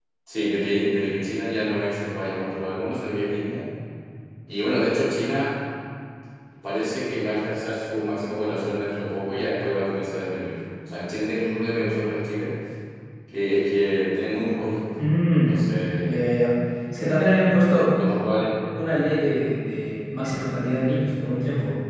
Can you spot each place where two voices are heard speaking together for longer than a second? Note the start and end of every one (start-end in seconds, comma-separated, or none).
none